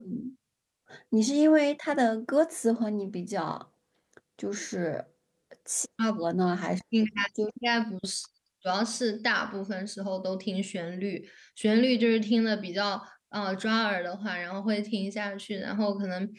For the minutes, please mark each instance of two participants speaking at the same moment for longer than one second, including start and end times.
none

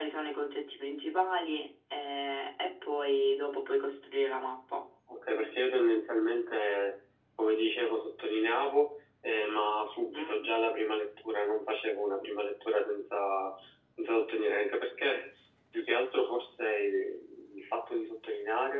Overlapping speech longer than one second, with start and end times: none

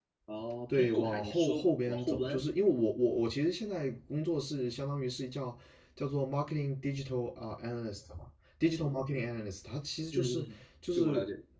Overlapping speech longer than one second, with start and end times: 0.7-2.4

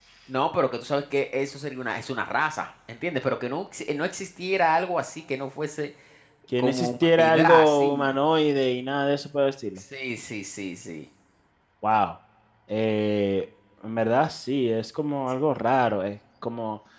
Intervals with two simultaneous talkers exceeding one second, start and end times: 6.6-8.1

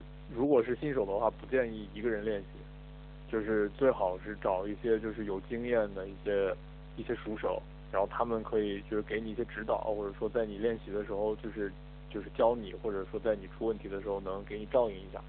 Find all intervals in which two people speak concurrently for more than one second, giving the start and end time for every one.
none

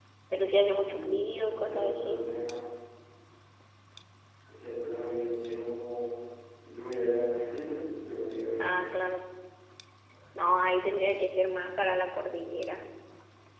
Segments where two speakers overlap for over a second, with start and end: 0.8-2.2

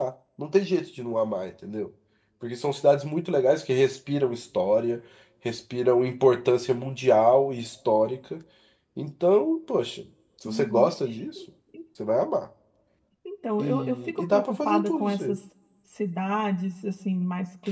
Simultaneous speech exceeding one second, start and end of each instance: 13.6-15.4

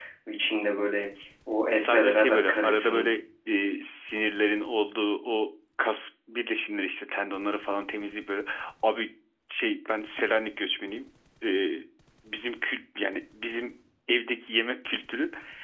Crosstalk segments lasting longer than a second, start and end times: 1.7-3.1

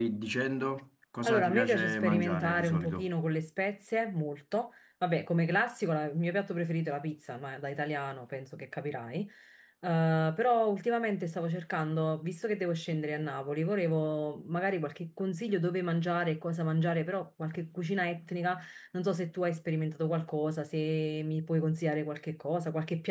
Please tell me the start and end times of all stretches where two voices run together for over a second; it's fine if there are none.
1.2-3.1

